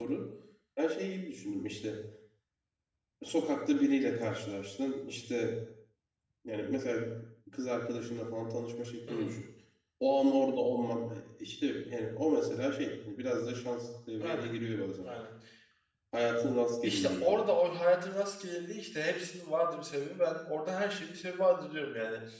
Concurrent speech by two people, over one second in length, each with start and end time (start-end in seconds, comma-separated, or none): none